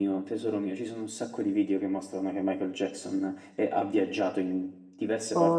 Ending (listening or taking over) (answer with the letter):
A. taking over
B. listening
B